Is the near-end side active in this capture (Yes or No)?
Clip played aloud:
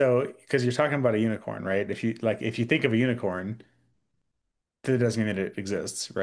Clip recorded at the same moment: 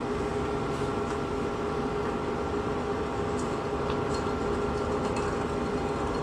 No